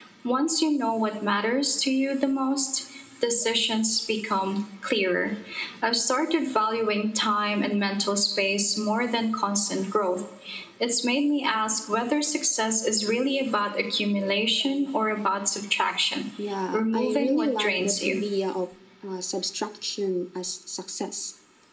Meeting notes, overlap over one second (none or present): present